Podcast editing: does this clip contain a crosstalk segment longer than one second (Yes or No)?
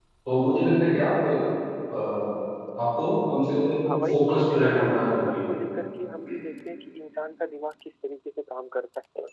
Yes